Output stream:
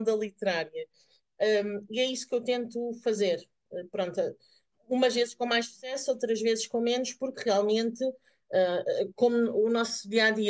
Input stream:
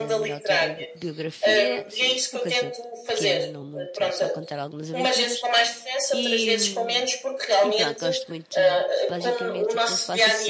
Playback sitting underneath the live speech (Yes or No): No